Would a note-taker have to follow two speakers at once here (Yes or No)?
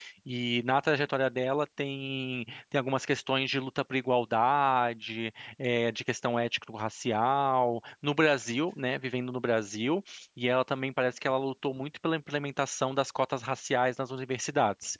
No